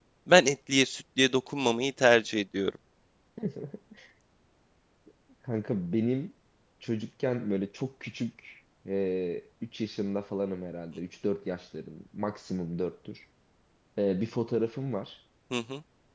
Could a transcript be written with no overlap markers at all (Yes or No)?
Yes